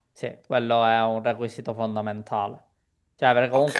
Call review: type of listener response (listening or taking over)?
listening